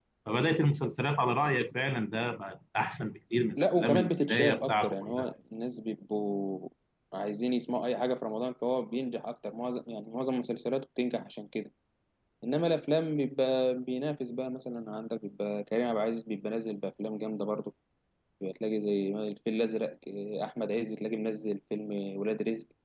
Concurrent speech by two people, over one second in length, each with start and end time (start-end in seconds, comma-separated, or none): 3.6-5.3